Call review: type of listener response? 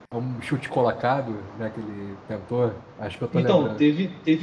taking over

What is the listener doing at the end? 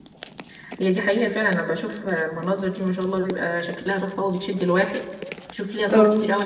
listening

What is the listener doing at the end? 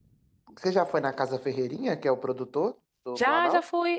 taking over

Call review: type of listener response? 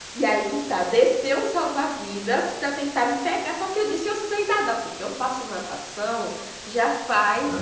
taking over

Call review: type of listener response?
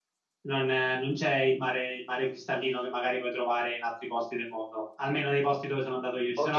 taking over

